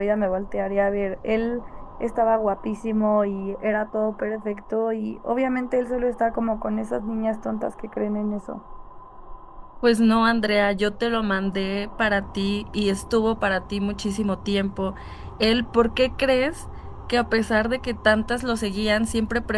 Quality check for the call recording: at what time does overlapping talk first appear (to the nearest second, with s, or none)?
none